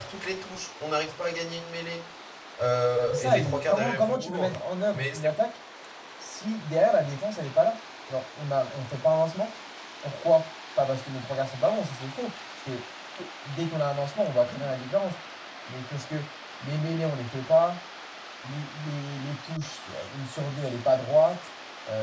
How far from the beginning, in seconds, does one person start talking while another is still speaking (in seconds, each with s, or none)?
3.1 s